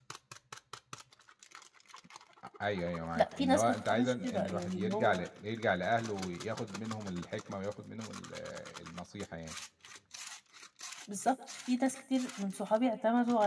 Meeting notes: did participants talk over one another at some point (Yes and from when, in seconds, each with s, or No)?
Yes, from 3.1 s